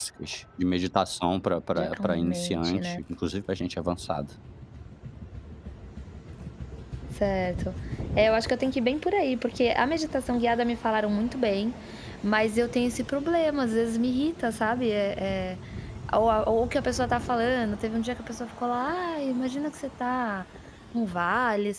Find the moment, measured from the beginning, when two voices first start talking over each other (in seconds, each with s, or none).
1.8 s